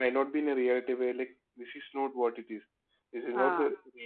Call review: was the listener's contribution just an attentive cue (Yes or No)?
Yes